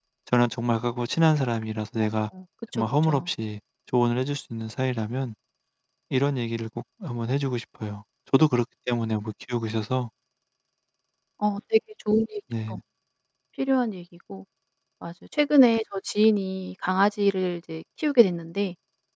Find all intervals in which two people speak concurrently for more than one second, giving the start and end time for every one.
none

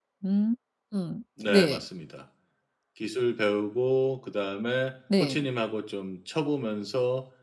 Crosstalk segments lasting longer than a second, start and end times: none

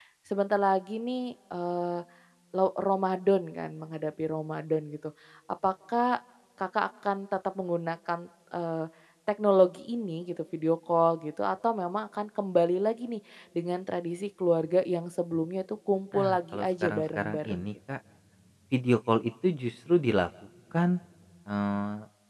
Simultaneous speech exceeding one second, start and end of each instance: 16.1-17.7

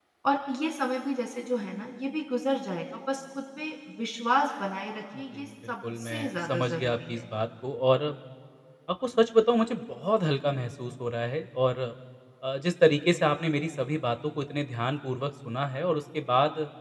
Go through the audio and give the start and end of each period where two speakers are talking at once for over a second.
5.2-7.3

